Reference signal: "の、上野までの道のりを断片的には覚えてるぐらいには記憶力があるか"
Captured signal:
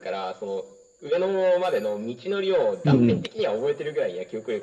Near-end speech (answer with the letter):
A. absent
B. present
B